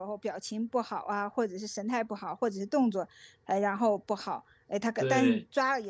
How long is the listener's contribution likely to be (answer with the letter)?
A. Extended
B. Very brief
B